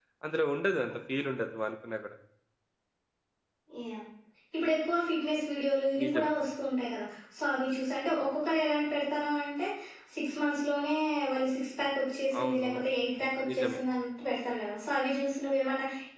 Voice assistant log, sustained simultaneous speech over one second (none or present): none